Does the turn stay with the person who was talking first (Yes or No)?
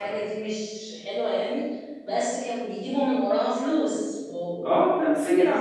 No